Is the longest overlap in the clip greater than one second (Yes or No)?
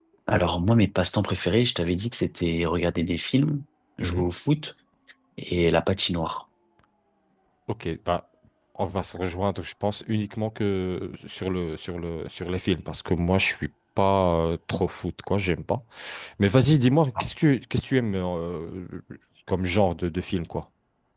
No